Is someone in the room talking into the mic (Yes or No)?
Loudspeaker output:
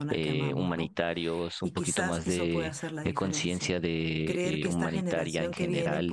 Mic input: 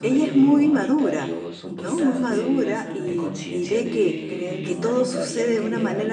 Yes